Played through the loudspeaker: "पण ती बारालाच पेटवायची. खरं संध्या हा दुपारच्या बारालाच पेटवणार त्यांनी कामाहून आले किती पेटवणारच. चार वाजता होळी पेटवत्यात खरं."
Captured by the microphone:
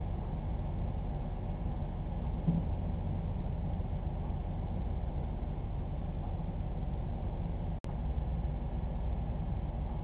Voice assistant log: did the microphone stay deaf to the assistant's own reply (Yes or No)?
Yes